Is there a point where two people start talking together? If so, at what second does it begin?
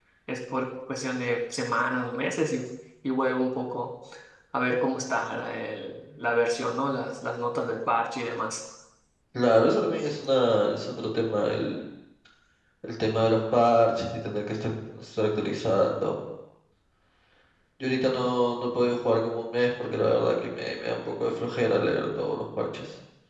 none

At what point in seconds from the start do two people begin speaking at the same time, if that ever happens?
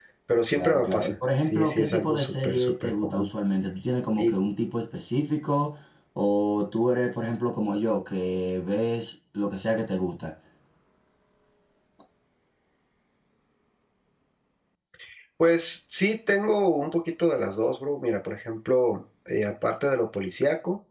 0.5 s

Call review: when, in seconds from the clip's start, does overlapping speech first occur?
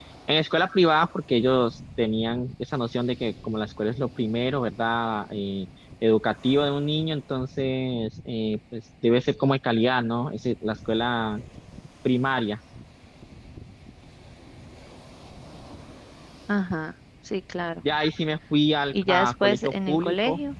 18.9 s

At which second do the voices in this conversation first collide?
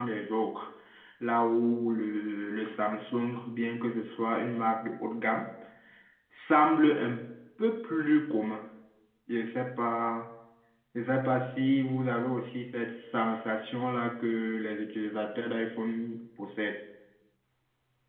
none

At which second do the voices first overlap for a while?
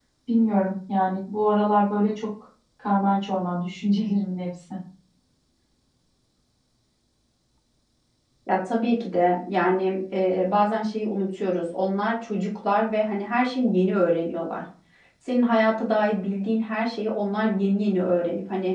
none

